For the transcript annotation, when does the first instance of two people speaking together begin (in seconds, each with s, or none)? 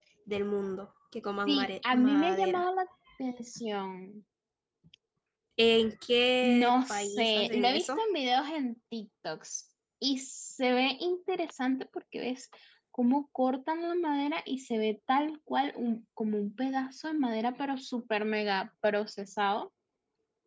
1.5 s